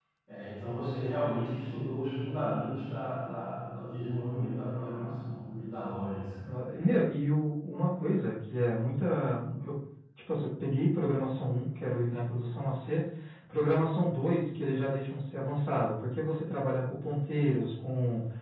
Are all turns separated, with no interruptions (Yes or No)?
Yes